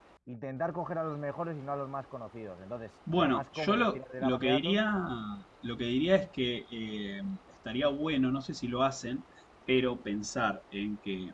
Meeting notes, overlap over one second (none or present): present